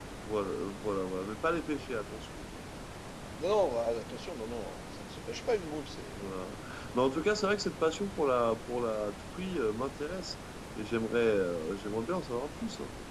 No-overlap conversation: Yes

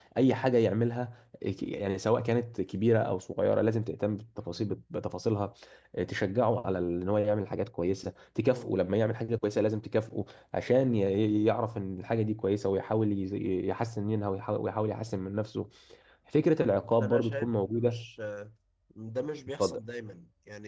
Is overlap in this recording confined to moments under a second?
No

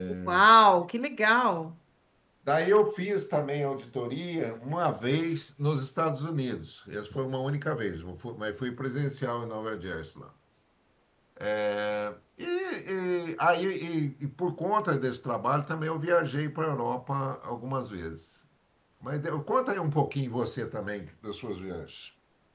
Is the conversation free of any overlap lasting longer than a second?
Yes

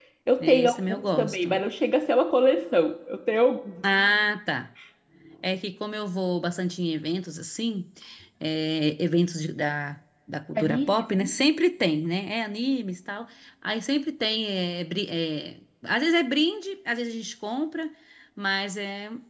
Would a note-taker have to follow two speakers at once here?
Yes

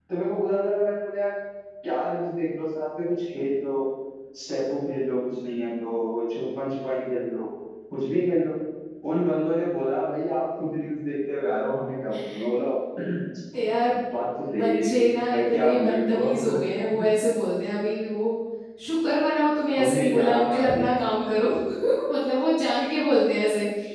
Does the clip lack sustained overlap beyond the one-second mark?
No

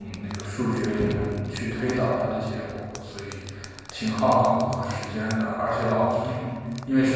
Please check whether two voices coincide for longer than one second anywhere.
No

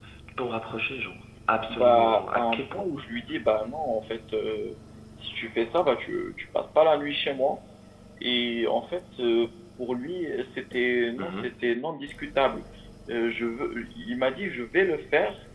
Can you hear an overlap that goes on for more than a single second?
Yes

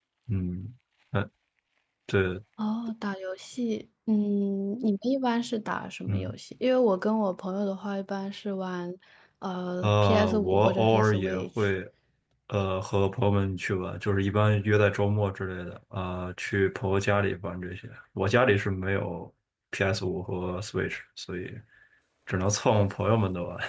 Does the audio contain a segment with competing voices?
Yes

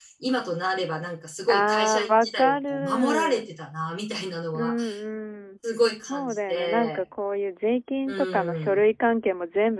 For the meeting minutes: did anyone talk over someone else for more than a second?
Yes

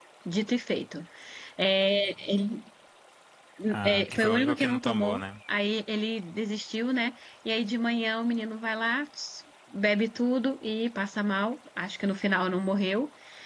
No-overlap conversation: No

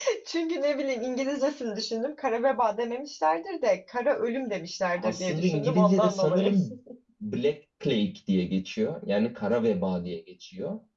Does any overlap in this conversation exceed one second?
Yes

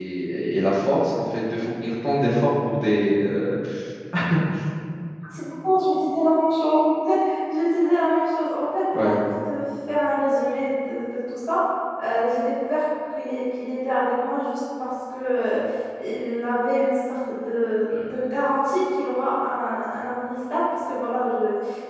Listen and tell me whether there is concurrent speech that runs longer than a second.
No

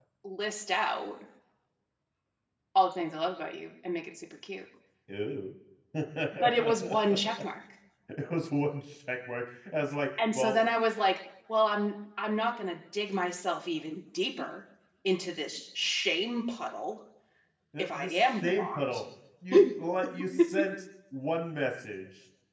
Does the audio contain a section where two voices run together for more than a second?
Yes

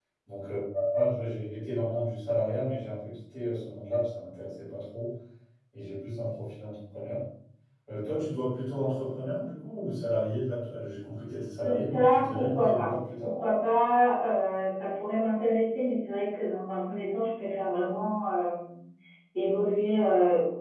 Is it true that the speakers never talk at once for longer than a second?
No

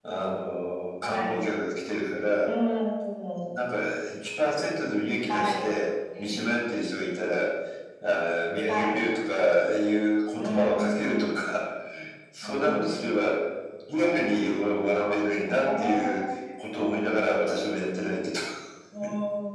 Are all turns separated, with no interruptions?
No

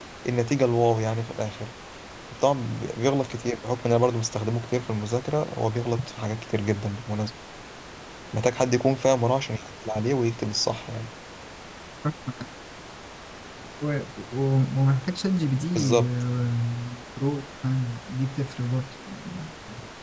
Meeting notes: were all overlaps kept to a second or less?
Yes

